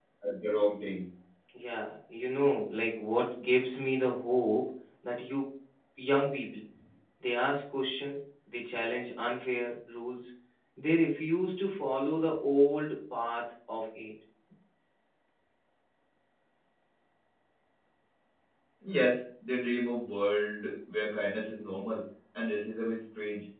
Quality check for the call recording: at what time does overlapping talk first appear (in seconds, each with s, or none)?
none